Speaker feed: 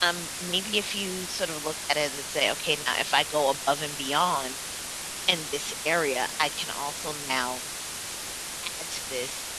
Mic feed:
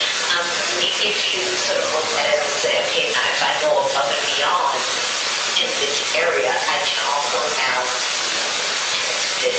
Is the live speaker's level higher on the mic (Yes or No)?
No